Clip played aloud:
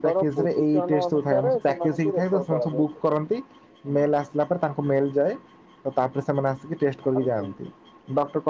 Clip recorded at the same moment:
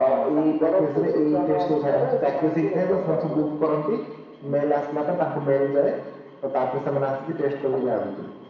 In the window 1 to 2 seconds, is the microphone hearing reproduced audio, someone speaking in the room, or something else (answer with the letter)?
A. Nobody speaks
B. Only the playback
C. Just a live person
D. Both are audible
B